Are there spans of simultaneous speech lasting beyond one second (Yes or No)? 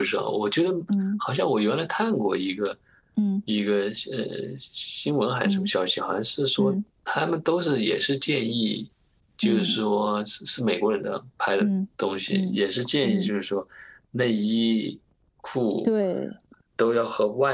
No